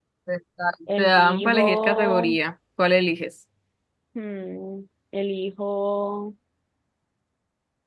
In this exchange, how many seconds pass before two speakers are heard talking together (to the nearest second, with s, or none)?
1 s